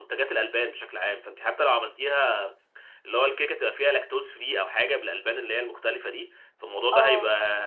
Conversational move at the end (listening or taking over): listening